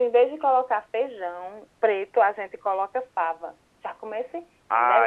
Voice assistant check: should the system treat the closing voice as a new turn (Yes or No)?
Yes